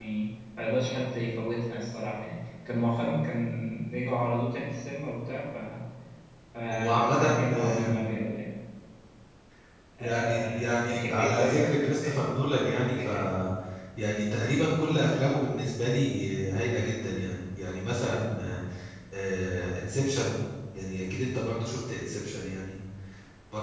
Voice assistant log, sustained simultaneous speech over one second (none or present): present